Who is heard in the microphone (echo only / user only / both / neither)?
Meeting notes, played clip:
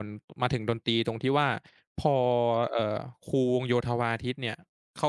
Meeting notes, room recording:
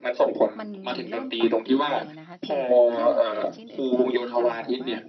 both